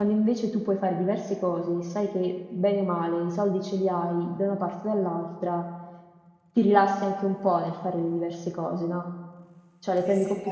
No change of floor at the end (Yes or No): No